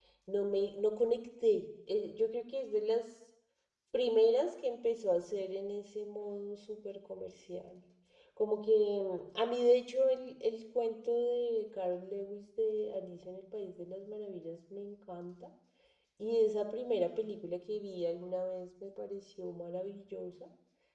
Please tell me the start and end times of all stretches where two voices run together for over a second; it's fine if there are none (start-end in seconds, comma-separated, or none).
none